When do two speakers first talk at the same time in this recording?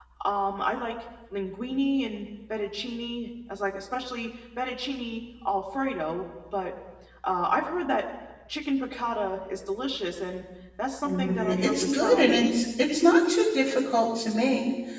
11.0 s

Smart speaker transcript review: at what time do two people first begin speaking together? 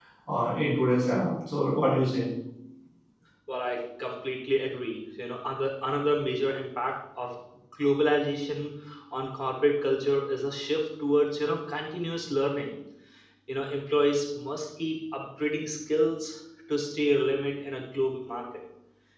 none

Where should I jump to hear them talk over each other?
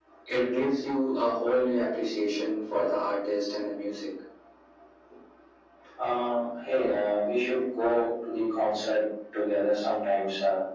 none

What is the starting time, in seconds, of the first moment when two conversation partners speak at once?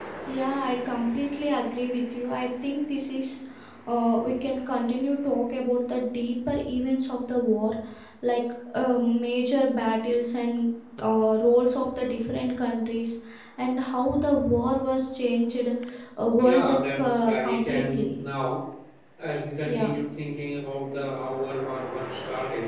16.4 s

